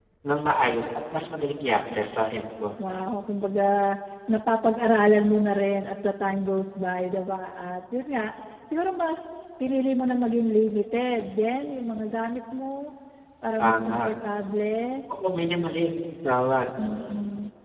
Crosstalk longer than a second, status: none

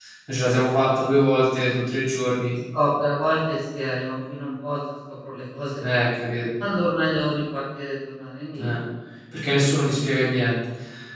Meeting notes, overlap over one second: none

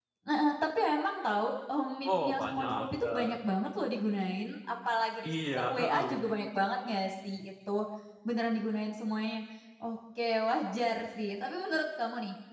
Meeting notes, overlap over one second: present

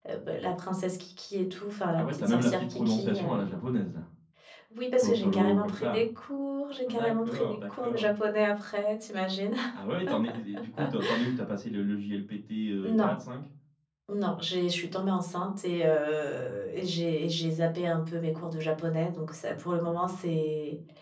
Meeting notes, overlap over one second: present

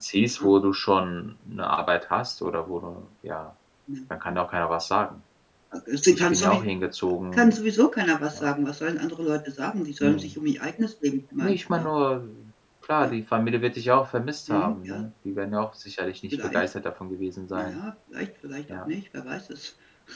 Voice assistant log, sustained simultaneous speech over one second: none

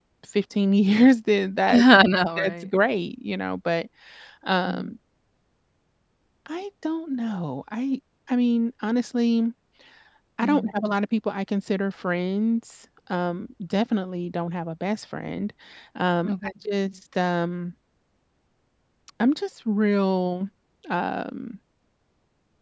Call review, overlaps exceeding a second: none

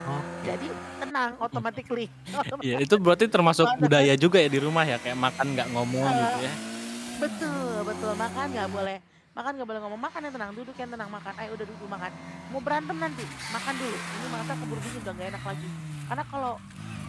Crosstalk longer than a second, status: none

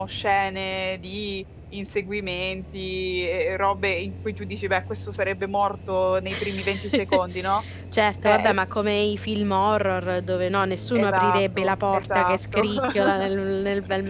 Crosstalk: present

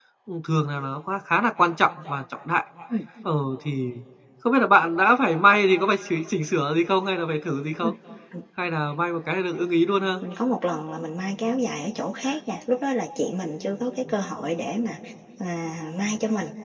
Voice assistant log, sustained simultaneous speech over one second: none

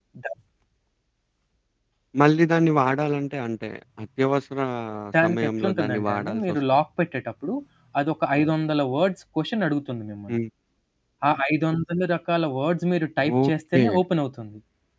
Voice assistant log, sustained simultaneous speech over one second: present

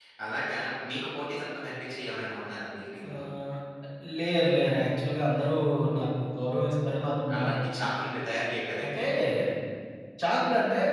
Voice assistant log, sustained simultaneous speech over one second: none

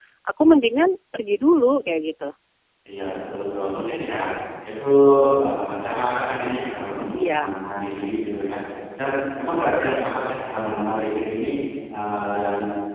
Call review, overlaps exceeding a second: none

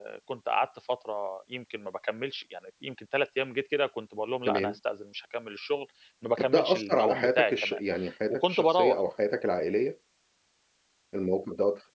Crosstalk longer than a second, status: present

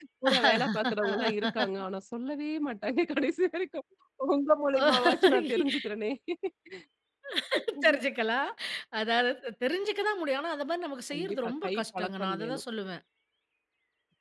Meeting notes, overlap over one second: present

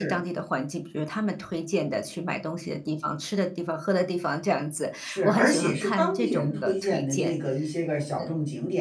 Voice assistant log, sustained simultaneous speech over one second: present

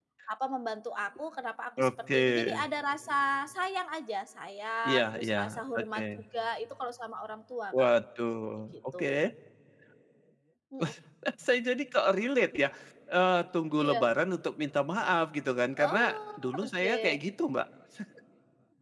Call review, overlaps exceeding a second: present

